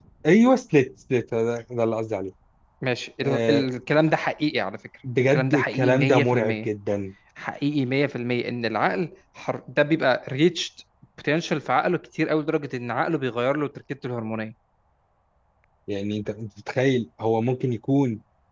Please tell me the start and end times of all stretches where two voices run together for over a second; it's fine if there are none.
5.3-6.7

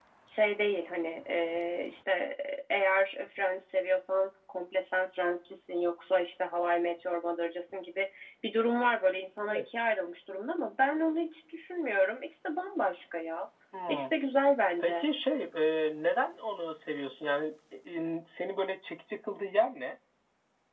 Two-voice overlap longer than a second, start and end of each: none

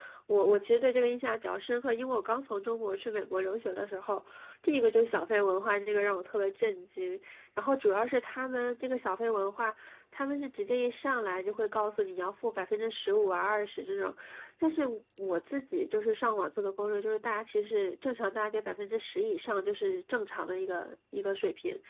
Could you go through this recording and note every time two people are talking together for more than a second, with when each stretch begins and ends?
none

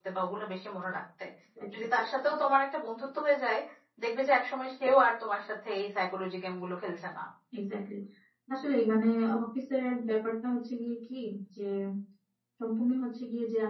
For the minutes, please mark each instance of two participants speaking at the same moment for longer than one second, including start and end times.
none

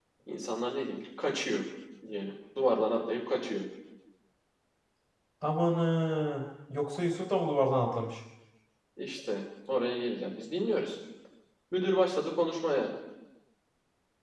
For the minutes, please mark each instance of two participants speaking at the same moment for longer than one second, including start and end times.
none

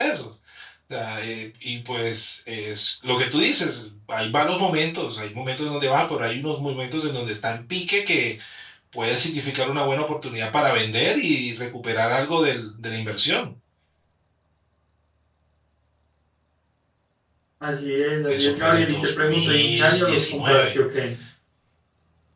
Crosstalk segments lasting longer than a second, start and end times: 18.3-20.8

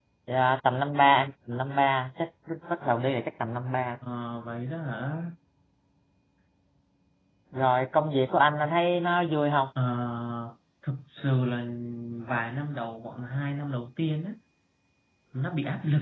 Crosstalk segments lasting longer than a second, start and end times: none

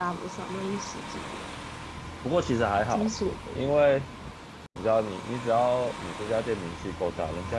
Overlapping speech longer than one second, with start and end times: none

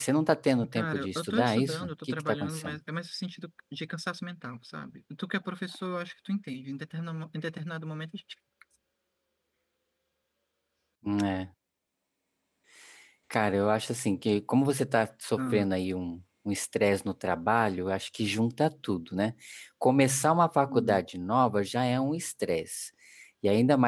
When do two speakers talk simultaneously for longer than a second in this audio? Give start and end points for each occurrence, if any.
0.7-2.8

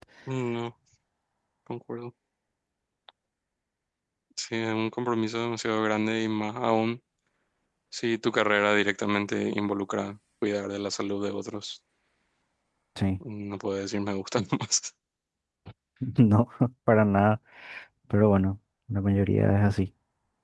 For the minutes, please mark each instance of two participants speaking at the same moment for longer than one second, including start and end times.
none

